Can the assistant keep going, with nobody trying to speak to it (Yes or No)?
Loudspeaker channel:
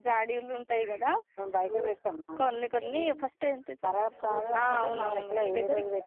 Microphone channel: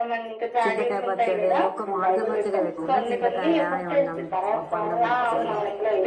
No